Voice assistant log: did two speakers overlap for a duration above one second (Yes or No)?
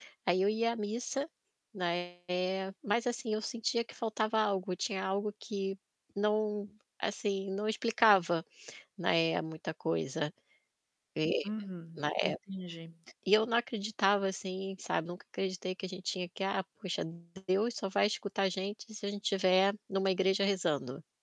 No